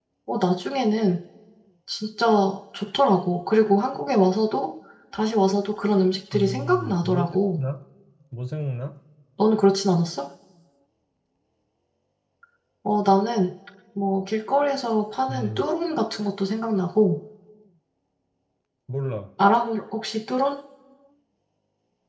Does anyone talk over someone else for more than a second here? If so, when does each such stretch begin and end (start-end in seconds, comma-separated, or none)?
6.3-7.6